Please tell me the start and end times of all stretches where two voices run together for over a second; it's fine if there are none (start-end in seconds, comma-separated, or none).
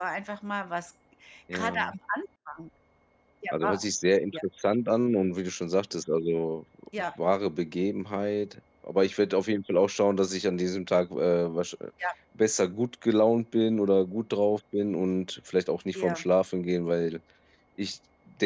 none